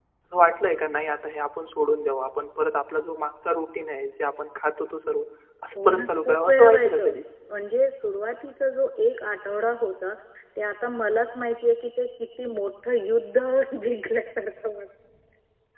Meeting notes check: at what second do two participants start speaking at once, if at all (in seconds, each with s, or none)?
5.8 s